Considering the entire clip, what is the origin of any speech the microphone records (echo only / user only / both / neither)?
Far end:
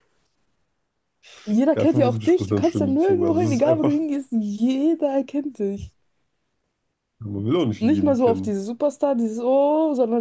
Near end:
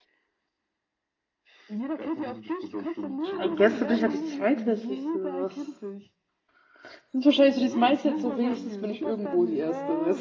both